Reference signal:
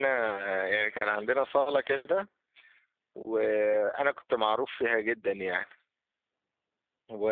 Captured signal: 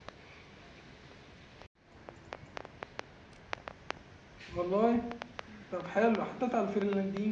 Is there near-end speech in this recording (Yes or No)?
Yes